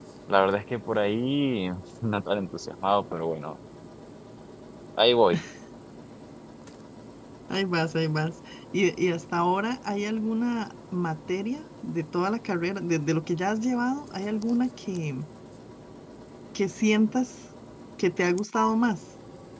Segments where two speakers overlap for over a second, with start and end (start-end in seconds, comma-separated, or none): none